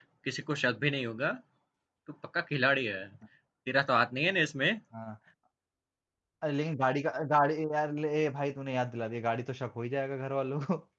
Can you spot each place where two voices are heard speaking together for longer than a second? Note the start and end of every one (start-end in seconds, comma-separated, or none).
none